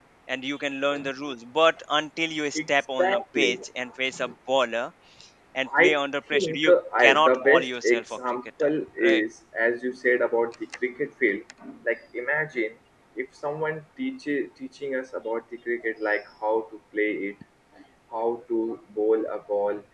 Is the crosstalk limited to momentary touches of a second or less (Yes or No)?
No